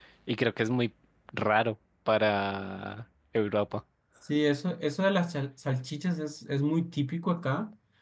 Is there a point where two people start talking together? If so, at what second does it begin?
none

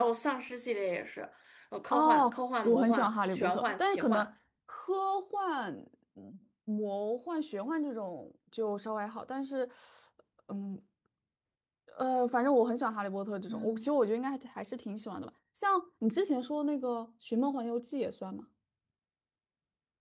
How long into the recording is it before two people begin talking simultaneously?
1.9 s

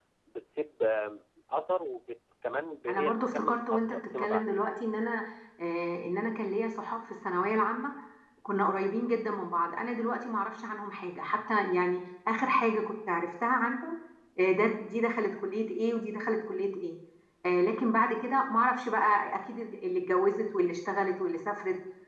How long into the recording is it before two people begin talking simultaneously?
2.9 s

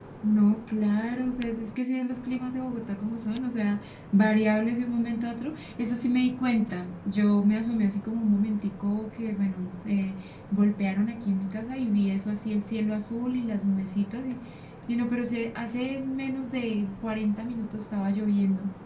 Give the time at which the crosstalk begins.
none

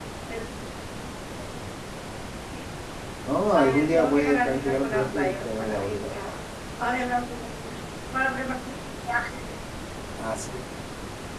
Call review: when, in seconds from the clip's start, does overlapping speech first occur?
3.5 s

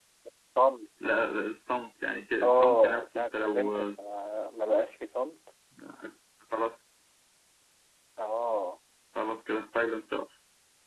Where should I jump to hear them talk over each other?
2.4 s

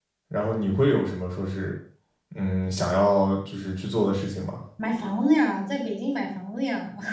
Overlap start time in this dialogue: none

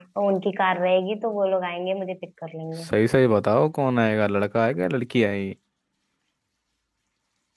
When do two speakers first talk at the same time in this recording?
none

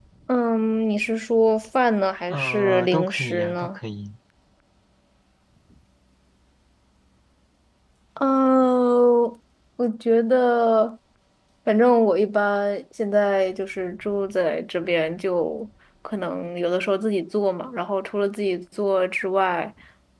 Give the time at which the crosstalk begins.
2.3 s

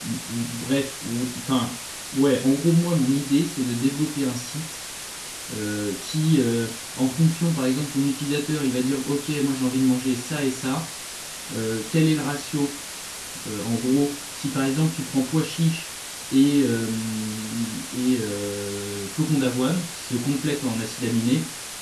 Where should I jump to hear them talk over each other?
none

